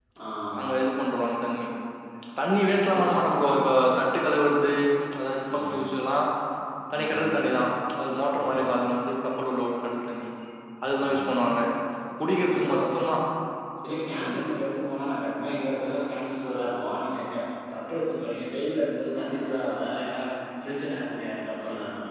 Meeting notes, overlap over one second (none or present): none